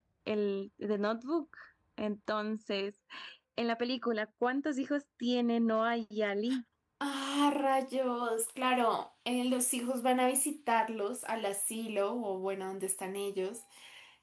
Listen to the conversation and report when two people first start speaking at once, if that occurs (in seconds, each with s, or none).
none